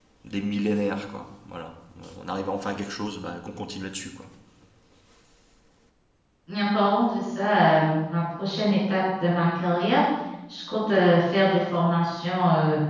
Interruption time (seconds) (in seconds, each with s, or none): none